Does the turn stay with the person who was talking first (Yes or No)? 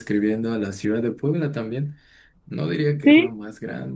Yes